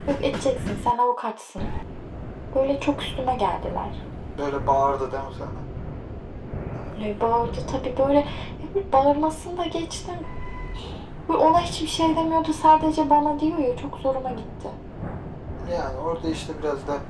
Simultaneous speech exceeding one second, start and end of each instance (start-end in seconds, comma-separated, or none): none